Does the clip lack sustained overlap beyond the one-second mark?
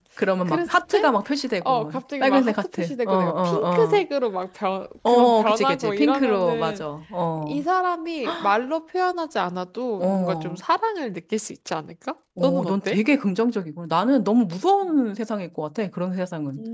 No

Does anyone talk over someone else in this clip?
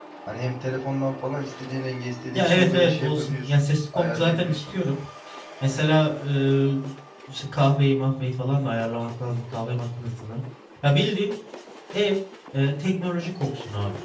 Yes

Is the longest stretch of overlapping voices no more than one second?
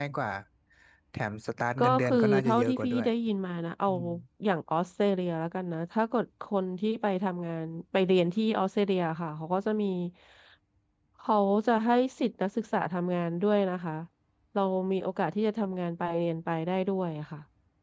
No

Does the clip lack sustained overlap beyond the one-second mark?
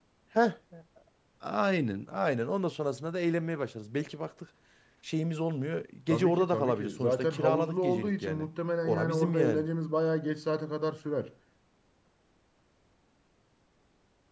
No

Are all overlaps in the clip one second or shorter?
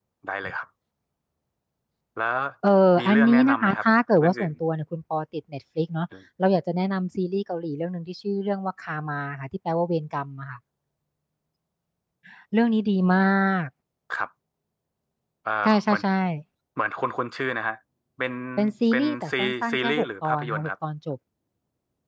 No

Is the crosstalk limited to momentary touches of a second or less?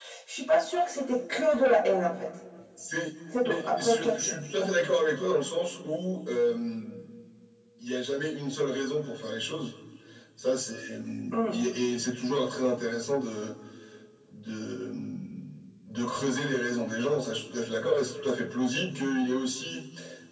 No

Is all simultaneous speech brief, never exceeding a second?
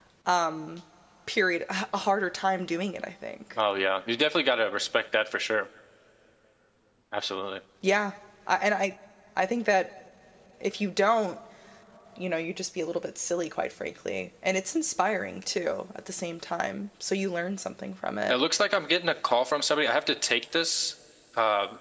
Yes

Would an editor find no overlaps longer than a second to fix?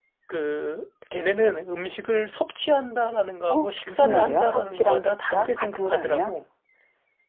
No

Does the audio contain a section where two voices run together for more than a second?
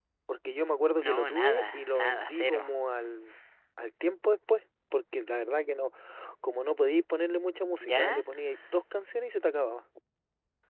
Yes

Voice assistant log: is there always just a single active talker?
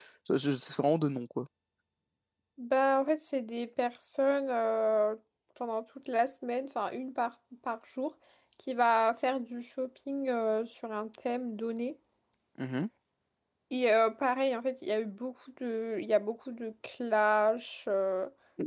Yes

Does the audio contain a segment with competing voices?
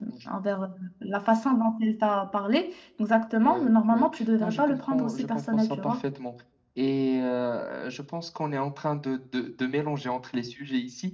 Yes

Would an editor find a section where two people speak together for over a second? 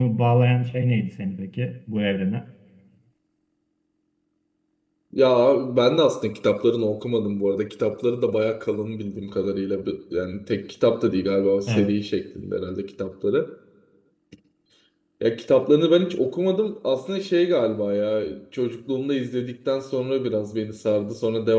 No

